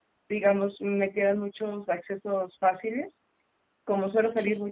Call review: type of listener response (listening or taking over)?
listening